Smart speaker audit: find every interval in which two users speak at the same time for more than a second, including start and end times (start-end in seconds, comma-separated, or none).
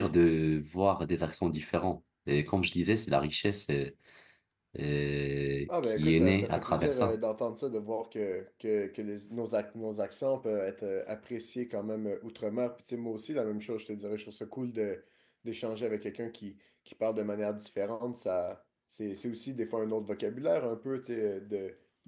6.0-7.2